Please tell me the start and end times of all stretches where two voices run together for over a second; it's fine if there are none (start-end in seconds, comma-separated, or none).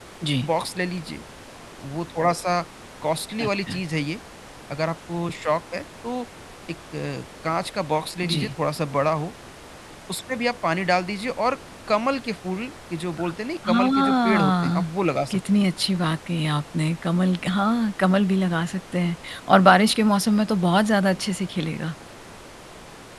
13.7-14.9